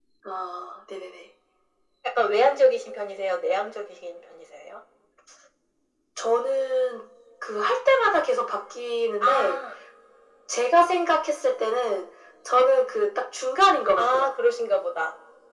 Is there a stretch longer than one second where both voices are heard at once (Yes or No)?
No